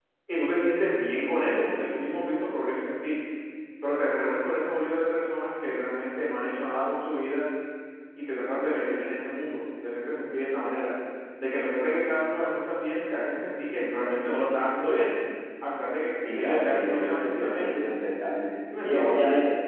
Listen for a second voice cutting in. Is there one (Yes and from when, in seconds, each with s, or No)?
Yes, from 16.2 s